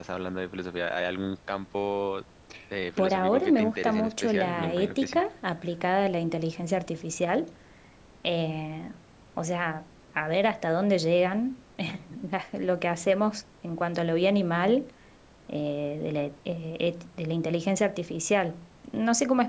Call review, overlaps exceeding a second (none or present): present